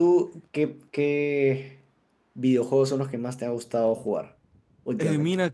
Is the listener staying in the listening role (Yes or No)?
No